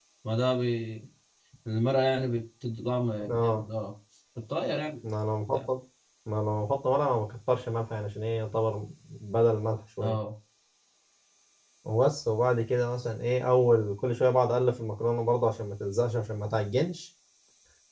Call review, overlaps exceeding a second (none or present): none